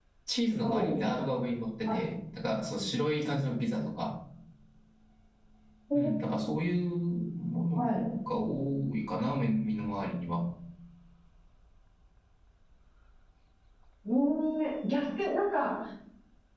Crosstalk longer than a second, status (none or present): none